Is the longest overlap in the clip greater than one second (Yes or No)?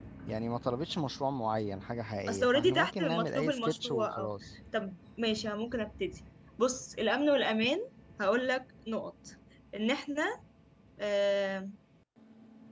Yes